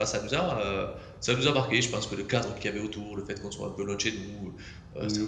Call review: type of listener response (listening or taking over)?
taking over